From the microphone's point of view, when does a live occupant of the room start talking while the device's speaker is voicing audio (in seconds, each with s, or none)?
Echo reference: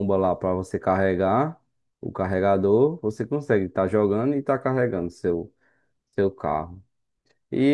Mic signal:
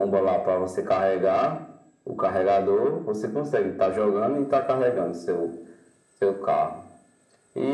none